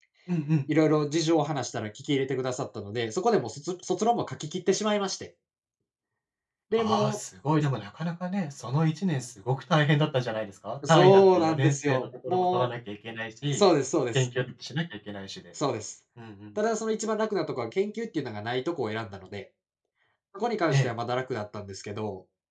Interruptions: present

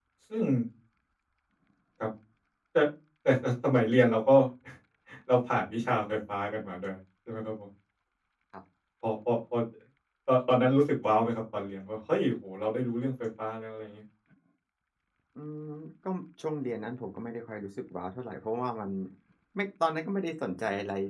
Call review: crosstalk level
none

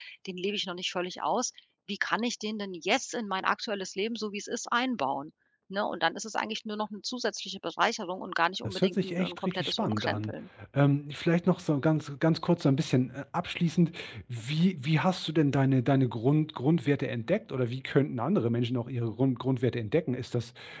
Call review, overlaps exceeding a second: present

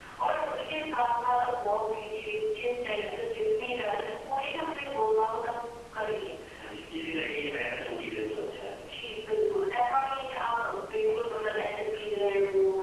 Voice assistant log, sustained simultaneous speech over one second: none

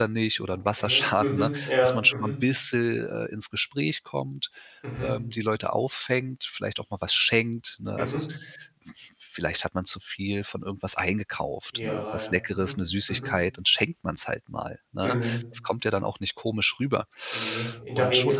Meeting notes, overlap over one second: present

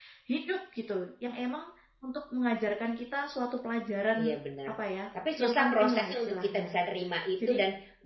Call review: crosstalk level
present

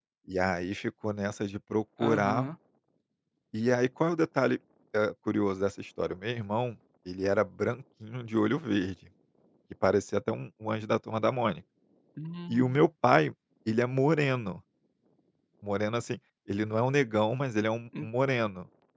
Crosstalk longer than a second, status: none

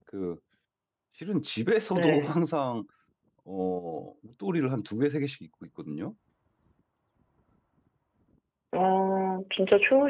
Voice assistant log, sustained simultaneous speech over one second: none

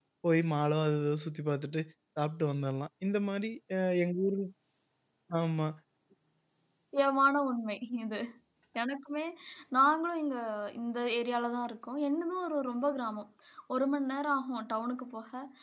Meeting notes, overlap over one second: none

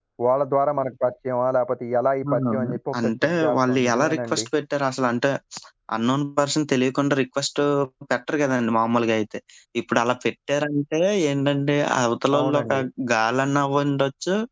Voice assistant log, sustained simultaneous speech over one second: present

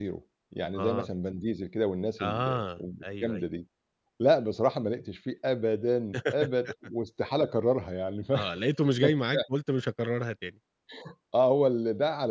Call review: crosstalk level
present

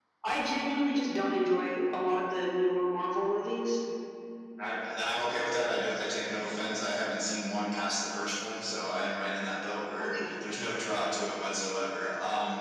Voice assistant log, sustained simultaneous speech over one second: none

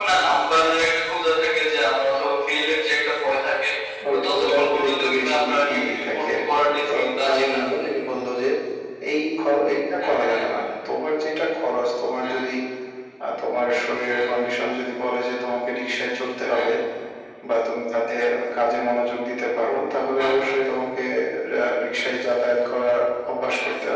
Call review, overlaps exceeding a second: present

